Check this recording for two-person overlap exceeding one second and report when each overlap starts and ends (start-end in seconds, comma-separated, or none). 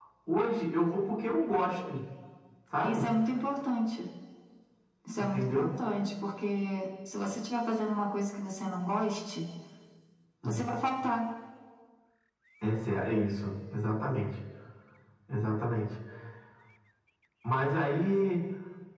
none